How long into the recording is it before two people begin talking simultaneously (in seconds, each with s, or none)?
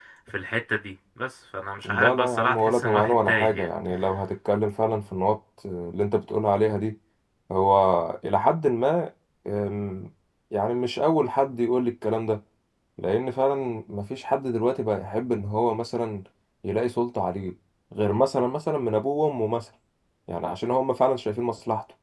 1.8 s